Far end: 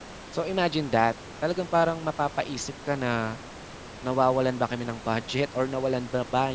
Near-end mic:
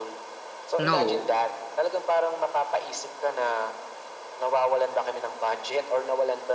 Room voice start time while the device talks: 0.8 s

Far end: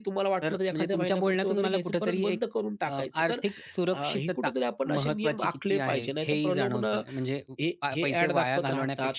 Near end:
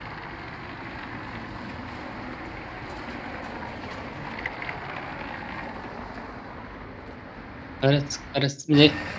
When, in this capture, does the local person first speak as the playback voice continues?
7.8 s

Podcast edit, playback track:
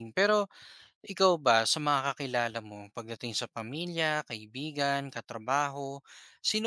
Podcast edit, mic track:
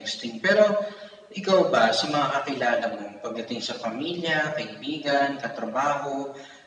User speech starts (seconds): none

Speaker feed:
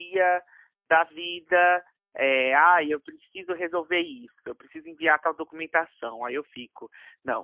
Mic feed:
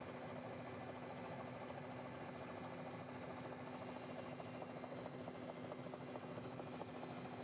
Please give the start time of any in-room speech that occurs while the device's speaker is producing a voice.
none

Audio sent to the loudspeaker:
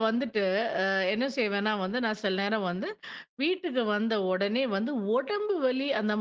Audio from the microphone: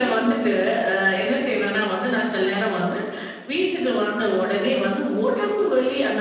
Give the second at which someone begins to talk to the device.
none

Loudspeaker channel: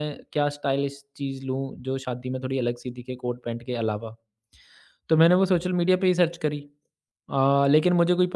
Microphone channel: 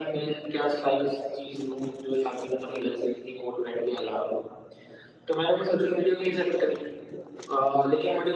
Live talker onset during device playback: none

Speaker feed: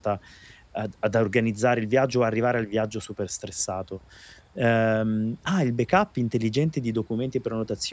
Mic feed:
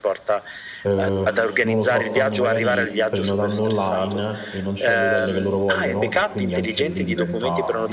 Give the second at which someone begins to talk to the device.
0.8 s

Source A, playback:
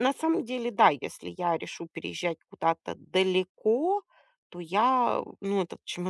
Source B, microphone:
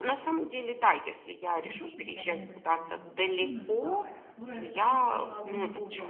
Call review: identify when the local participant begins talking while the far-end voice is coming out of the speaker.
1.6 s

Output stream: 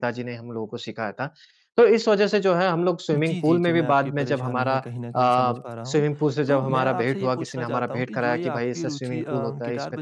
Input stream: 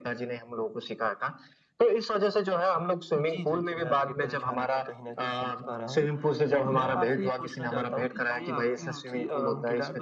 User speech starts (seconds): none

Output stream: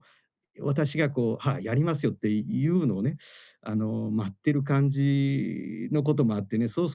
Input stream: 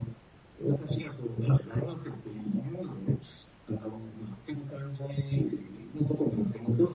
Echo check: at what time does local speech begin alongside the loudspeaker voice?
none

